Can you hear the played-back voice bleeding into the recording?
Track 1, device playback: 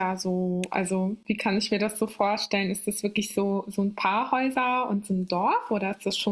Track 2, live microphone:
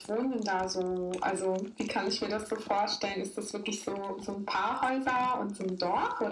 Yes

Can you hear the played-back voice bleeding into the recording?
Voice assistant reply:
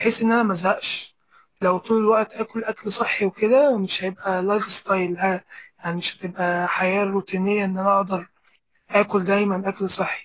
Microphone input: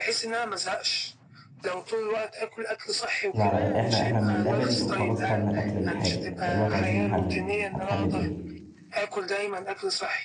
Yes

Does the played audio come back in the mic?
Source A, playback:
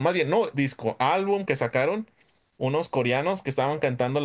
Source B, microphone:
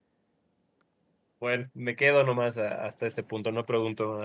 No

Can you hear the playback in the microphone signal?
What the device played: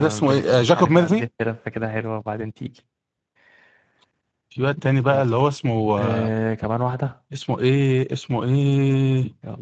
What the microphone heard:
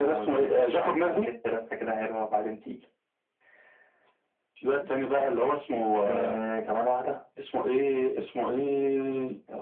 Yes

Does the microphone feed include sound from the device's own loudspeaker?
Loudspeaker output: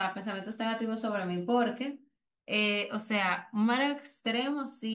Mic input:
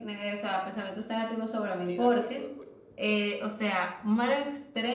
Yes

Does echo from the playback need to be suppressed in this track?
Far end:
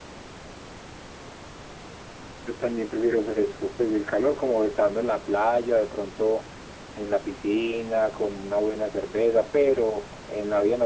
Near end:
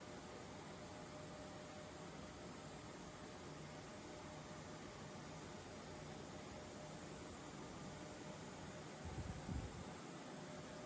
No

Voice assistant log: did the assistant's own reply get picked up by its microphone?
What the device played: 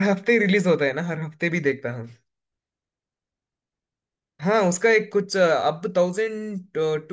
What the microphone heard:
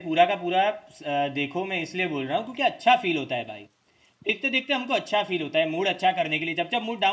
No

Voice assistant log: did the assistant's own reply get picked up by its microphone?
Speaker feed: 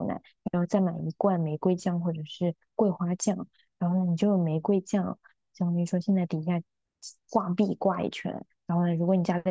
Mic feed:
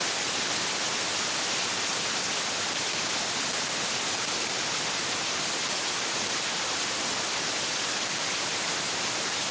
No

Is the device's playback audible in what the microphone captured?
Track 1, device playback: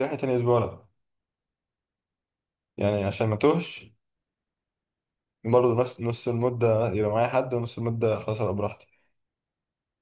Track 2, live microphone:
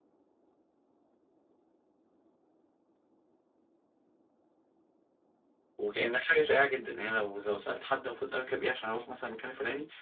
No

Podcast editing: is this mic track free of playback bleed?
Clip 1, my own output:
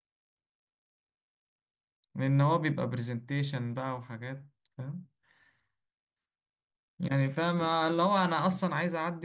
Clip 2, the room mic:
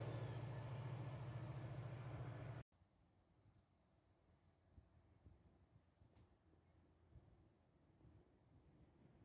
Yes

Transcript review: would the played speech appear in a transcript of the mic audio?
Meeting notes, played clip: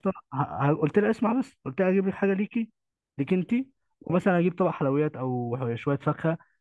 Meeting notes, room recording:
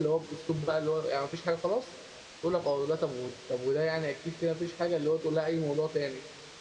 No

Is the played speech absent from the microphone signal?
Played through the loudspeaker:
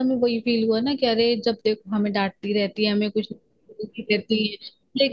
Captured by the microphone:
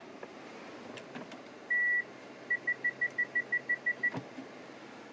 Yes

